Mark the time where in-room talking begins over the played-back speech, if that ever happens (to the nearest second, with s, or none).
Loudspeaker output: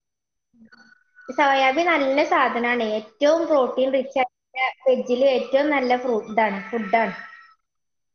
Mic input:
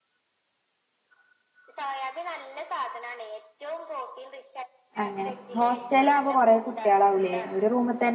5 s